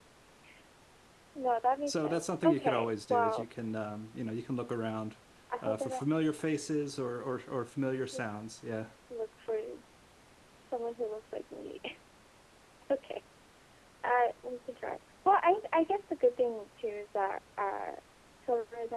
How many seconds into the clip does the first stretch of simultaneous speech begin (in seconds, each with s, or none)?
1.9 s